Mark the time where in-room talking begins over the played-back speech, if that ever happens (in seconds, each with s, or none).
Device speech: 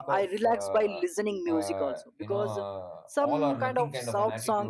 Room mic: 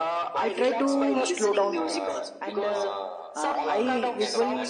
0.4 s